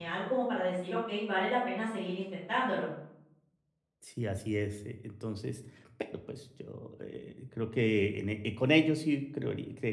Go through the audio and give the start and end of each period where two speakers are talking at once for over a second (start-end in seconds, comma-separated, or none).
none